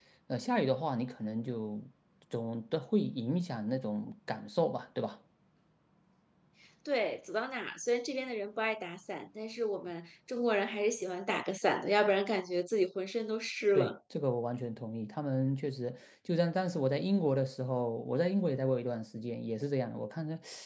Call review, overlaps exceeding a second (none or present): none